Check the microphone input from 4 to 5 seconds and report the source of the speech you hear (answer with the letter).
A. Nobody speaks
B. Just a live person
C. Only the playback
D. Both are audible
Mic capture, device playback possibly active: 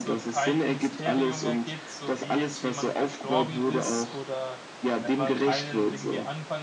D